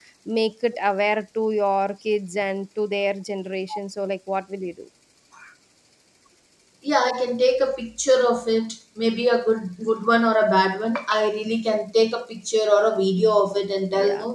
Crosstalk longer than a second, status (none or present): none